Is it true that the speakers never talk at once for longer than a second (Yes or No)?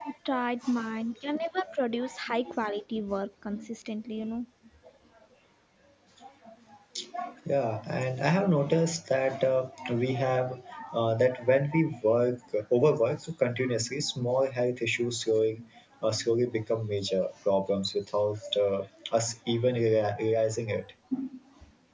Yes